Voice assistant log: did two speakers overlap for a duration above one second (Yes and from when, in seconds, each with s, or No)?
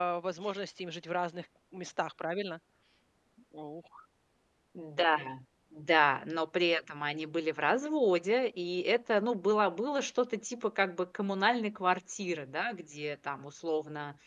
No